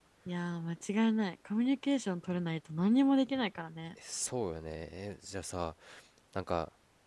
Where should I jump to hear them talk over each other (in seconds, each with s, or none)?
none